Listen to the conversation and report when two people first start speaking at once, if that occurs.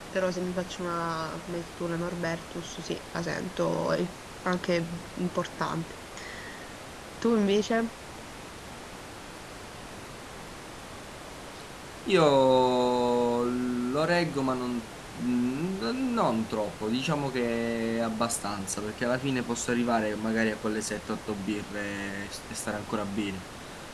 none

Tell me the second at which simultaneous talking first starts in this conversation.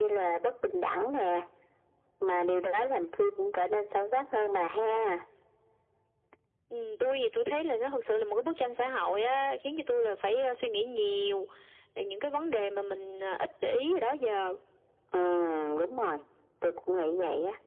none

